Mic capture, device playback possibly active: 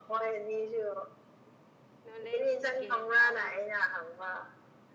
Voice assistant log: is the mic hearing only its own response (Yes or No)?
No